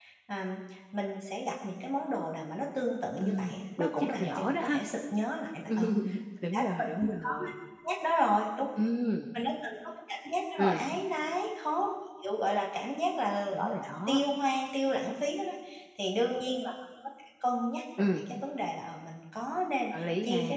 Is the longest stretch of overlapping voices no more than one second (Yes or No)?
No